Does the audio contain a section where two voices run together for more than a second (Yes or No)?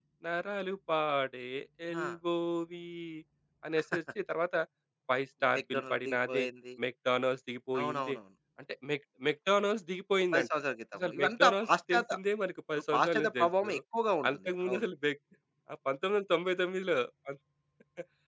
Yes